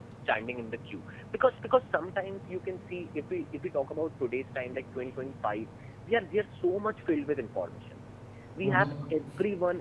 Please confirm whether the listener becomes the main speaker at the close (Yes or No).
No